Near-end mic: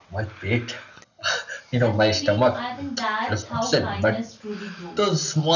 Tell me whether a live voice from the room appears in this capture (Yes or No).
Yes